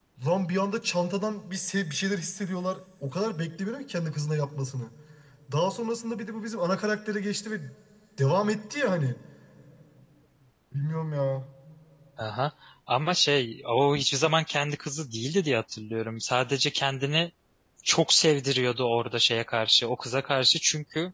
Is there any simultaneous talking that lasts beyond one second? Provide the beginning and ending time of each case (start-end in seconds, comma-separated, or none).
none